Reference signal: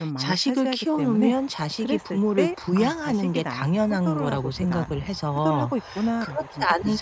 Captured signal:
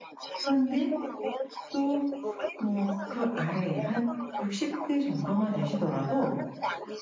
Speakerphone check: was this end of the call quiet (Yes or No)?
No